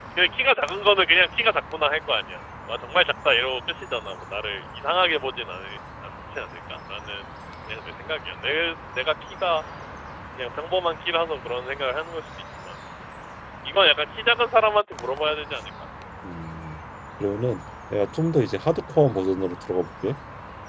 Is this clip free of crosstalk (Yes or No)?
Yes